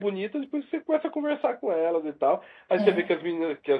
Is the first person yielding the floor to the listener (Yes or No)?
No